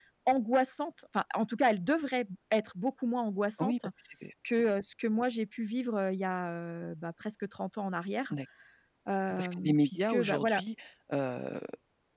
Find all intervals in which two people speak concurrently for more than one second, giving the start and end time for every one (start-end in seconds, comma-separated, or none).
9.4-10.6